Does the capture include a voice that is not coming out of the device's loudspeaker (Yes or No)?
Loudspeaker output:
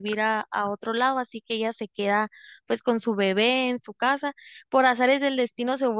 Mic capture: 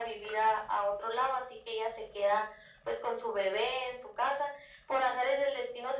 No